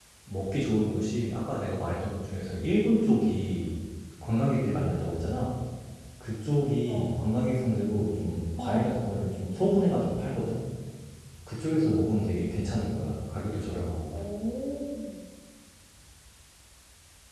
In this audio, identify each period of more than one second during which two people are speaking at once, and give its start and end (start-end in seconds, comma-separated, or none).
none